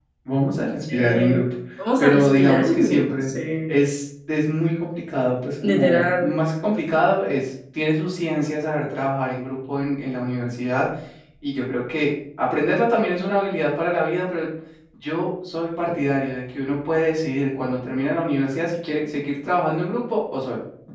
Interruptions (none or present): present